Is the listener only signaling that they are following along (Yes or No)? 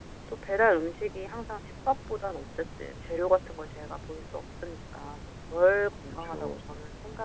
Yes